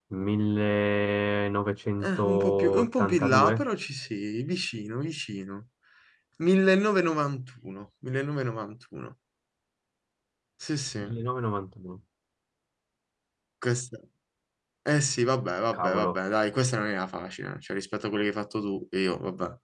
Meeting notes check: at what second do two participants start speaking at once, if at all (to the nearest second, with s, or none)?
2 s